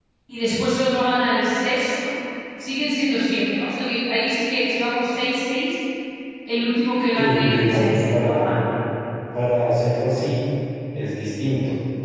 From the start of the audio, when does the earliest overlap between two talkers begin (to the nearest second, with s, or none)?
7 s